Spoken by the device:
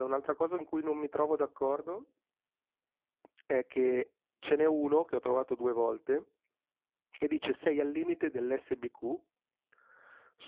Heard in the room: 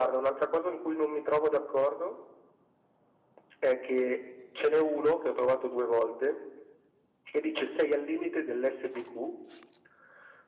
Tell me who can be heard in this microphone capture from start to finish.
echo only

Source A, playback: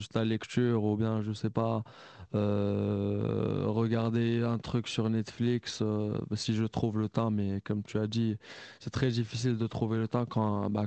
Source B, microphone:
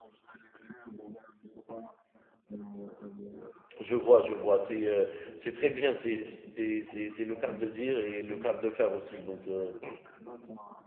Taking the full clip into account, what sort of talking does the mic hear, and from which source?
both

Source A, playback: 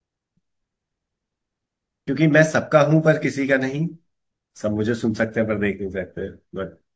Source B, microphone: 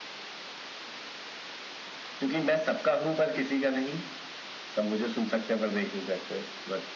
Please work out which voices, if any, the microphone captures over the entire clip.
echo only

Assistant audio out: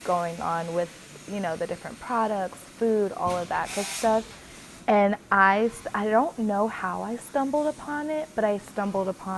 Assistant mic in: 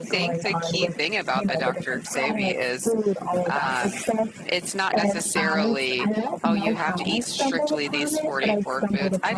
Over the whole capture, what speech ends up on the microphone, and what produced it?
both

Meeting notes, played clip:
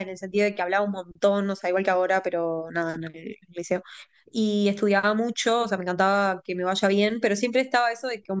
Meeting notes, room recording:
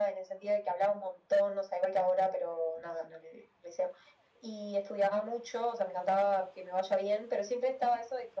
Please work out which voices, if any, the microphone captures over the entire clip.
echo only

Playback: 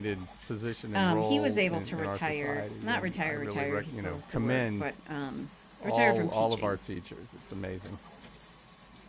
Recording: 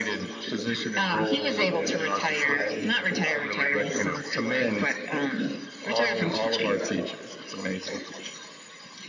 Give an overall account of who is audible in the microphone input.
echo only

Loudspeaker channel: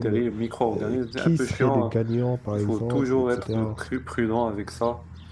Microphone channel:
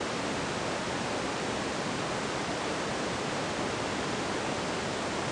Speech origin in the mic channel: neither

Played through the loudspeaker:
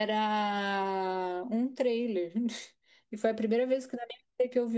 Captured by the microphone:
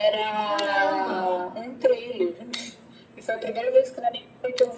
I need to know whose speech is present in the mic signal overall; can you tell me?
both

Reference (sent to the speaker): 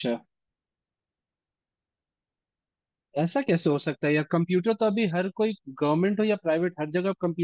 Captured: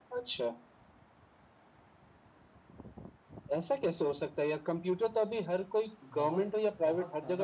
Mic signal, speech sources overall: both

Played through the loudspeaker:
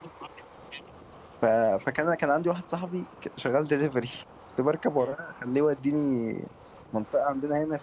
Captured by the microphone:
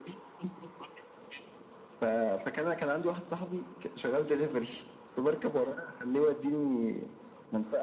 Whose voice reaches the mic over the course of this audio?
echo only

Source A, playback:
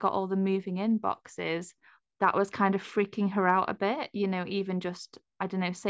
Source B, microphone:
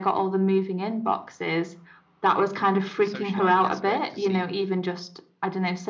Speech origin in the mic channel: both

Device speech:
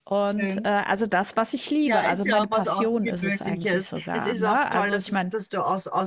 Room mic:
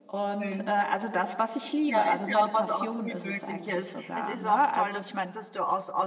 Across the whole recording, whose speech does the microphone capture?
echo only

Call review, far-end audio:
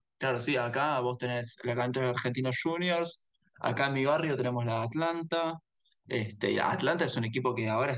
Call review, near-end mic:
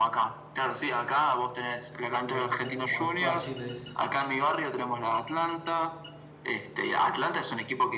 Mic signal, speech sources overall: both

